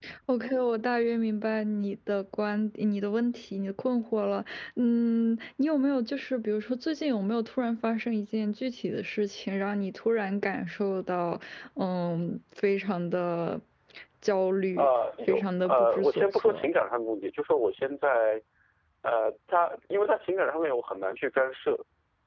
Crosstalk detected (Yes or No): Yes